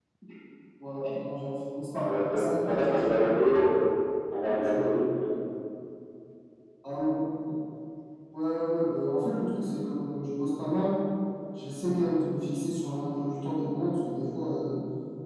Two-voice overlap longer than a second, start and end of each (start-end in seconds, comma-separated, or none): 2.0-3.3